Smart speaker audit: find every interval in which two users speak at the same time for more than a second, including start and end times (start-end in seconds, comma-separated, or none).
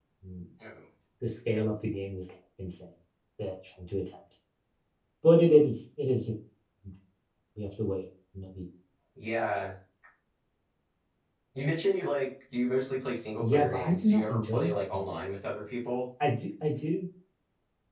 13.4-15.1